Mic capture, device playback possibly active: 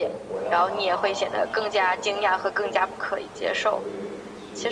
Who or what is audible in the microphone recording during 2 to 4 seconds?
both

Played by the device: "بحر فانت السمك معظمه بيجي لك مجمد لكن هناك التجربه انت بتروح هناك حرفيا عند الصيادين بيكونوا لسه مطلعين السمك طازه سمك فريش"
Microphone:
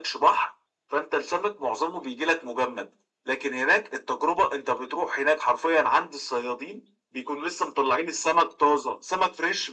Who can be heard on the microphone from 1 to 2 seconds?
echo only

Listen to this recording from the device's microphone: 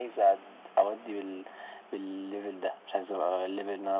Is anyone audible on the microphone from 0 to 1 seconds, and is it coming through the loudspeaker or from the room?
echo only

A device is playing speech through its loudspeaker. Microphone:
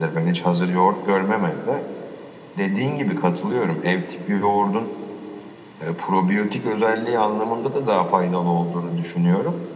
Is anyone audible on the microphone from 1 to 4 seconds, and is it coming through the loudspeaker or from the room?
echo only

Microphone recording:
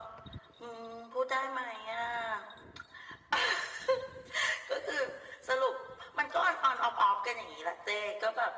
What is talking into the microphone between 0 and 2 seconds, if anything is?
echo only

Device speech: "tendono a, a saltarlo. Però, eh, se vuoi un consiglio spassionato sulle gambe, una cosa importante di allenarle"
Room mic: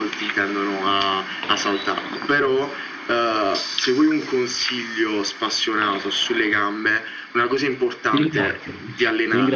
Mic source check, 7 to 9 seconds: both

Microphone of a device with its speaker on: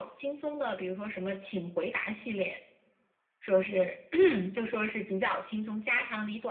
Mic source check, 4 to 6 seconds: echo only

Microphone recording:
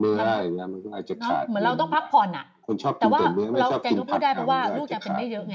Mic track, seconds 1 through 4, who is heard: both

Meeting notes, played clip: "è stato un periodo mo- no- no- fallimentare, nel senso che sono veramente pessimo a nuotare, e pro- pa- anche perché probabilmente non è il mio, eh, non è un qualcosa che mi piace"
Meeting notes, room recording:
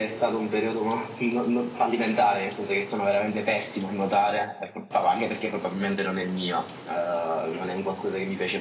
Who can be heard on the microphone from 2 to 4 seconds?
echo only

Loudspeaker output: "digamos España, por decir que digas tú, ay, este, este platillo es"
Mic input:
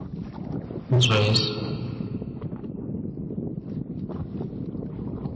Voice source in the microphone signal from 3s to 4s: neither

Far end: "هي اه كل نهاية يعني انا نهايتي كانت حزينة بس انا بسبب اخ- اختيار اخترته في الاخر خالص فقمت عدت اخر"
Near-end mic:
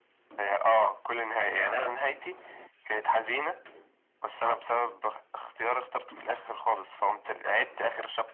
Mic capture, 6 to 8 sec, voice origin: echo only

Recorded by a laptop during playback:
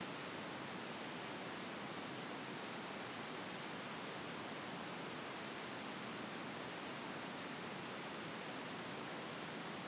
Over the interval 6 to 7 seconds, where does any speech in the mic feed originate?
neither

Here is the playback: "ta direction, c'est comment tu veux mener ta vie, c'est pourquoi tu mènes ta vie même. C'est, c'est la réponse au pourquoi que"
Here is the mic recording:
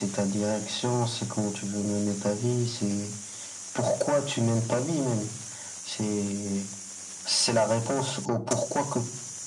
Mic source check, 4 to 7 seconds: echo only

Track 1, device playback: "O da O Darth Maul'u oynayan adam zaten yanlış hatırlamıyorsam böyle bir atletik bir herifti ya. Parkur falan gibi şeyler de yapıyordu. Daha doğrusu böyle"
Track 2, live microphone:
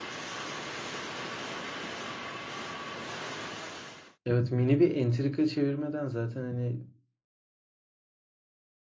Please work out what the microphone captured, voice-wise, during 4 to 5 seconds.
user only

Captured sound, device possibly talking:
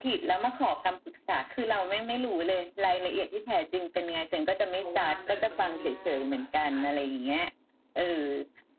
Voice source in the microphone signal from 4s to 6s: both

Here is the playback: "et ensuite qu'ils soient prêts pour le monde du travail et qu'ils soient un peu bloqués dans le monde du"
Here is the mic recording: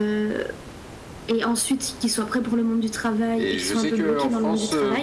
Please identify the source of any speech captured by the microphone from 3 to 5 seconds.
both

